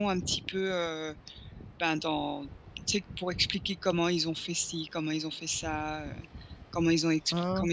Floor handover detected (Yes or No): No